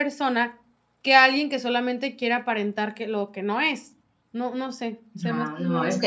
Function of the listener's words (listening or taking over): taking over